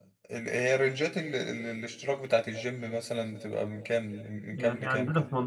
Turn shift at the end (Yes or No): Yes